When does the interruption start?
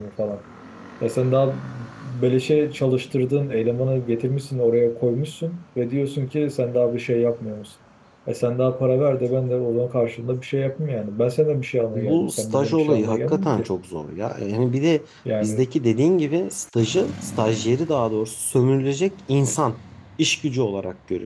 11.9 s

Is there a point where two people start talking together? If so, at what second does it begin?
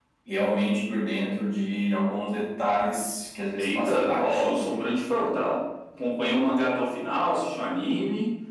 3.6 s

